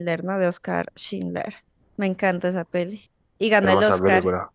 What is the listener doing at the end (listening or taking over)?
taking over